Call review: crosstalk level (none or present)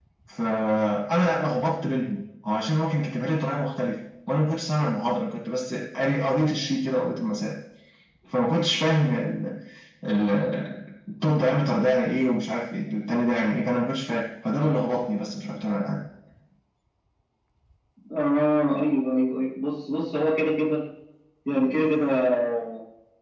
none